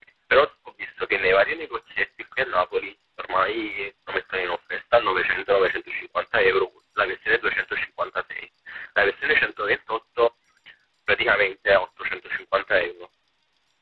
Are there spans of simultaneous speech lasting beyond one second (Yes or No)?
No